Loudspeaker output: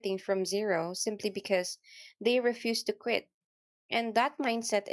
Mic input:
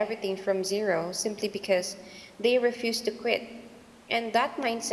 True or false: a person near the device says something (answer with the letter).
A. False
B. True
A